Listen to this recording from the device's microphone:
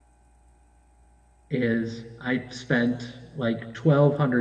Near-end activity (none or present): present